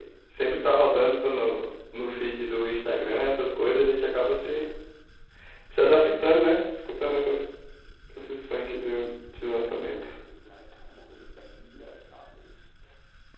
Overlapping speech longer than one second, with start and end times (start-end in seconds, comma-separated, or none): none